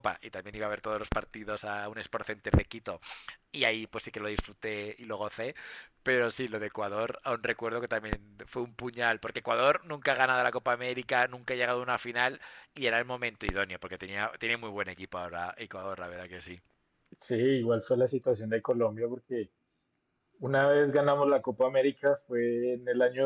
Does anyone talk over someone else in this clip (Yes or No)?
No